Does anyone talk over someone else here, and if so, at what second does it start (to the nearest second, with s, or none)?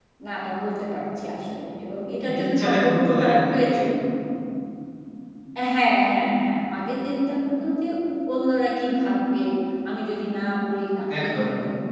2 s